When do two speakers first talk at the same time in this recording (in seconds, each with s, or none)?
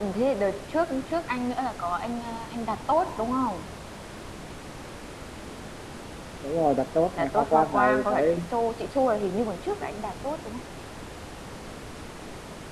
7.2 s